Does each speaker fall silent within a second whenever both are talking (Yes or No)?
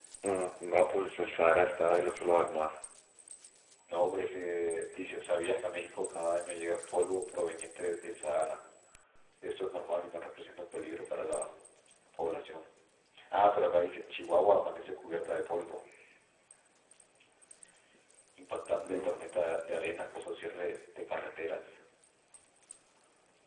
Yes